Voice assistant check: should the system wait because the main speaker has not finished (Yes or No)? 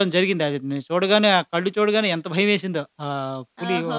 No